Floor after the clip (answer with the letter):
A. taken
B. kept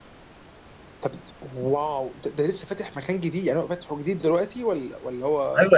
A